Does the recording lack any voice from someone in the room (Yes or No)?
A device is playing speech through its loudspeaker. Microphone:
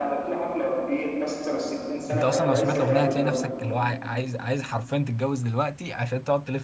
No